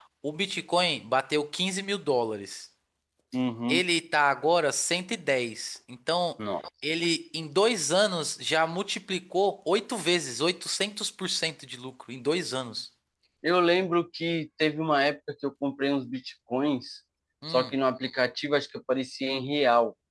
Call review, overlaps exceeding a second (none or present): none